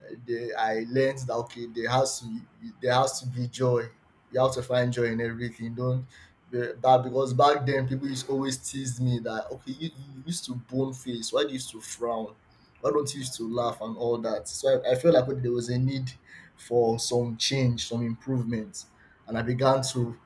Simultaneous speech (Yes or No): No